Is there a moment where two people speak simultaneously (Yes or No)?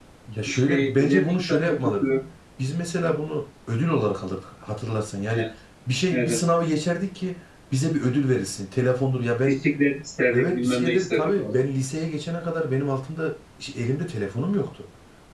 Yes